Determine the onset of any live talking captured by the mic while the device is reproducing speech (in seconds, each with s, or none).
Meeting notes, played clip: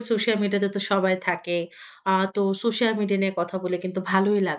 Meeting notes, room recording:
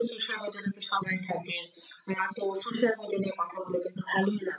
none